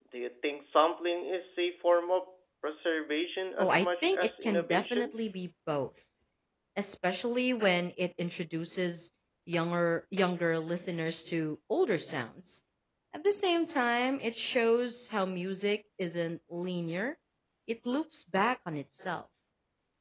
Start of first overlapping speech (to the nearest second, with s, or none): 4 s